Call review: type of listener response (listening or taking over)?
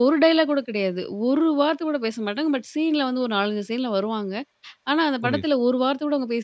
listening